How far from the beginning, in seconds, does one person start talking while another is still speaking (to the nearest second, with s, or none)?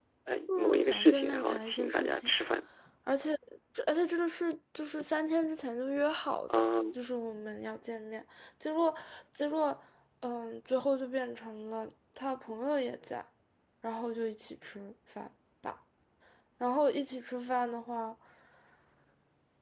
1 s